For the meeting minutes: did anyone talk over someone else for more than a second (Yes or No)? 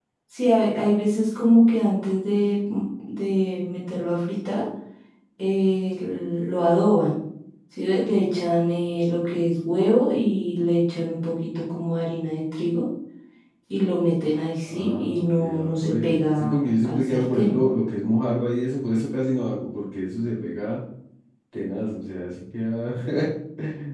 Yes